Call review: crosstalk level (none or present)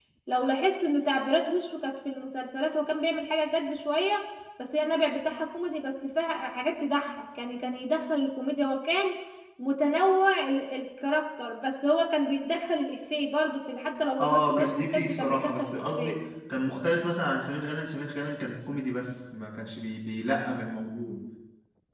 present